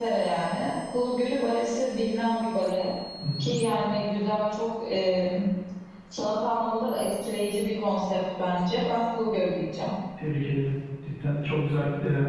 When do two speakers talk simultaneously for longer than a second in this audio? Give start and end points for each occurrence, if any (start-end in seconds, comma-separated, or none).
none